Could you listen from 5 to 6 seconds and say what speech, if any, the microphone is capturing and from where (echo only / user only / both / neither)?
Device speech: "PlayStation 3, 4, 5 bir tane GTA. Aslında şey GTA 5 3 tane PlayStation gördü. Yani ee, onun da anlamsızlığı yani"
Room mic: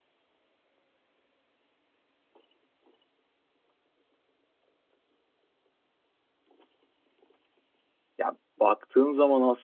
neither